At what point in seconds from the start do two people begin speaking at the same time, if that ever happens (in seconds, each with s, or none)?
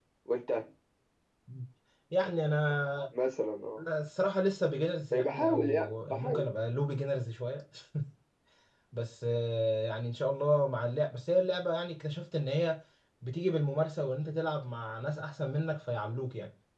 5.1 s